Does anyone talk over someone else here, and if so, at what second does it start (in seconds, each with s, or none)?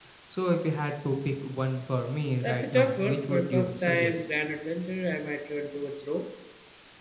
2.4 s